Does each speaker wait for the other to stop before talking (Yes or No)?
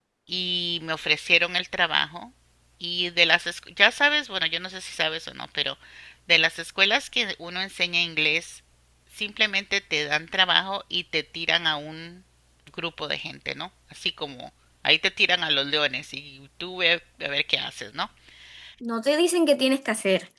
Yes